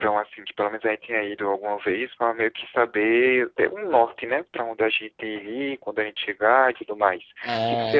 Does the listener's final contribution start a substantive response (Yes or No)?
Yes